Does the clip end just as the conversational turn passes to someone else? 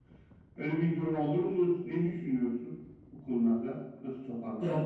Yes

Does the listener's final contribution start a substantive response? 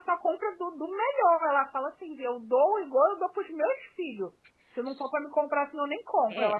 Yes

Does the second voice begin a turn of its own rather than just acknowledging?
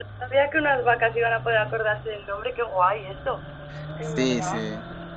Yes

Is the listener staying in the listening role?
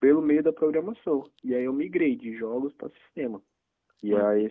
Yes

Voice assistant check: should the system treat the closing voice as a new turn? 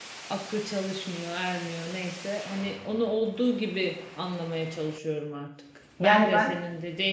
No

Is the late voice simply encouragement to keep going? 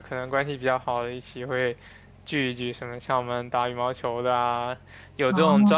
Yes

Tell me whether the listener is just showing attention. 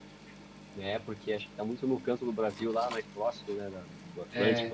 Yes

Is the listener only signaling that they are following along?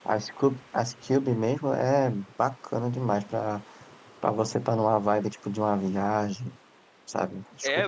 No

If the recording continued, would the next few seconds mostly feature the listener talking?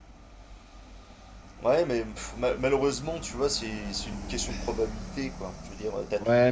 No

